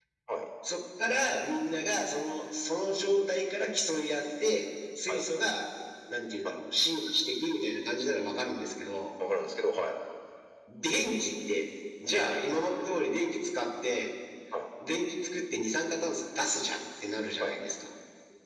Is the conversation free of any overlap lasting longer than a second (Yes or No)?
Yes